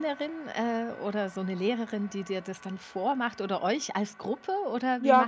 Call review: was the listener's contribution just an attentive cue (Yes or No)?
No